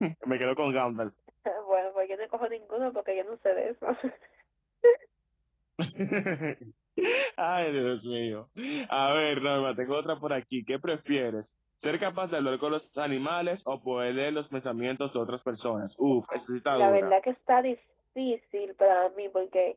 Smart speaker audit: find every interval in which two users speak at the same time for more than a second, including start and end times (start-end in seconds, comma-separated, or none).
none